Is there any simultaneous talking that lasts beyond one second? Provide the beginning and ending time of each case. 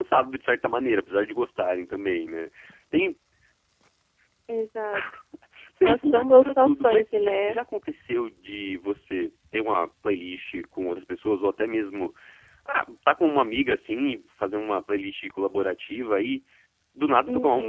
5.8-7.6

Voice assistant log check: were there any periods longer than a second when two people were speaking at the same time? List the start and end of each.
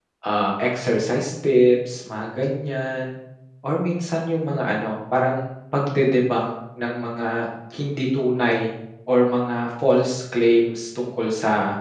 none

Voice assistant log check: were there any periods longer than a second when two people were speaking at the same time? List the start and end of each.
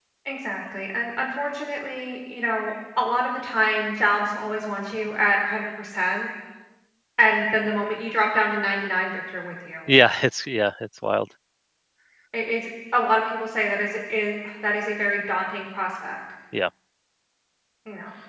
none

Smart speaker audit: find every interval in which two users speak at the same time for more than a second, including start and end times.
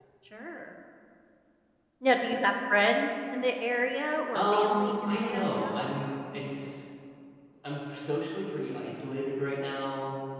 4.3-5.7

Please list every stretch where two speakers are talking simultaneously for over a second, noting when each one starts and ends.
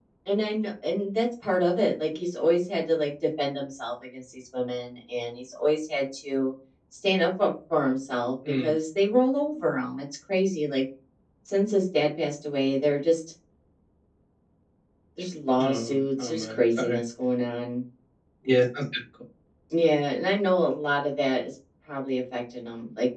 15.6-17.0

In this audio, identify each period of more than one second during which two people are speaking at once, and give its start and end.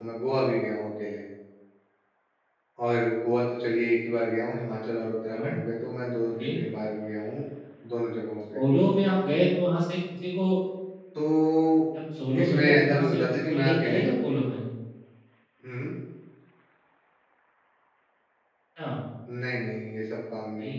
12.4-14.0

